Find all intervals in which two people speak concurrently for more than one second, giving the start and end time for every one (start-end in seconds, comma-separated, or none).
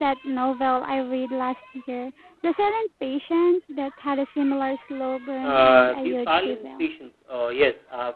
5.4-6.8